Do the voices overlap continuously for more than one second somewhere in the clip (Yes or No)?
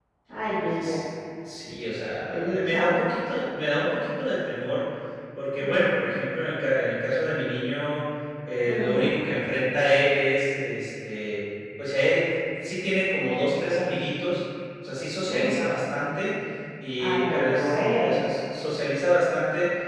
Yes